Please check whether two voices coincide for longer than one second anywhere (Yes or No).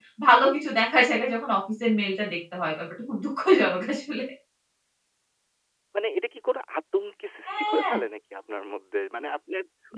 No